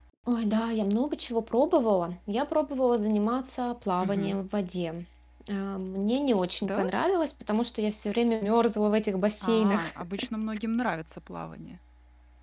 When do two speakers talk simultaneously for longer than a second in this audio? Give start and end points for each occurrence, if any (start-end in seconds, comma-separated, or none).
none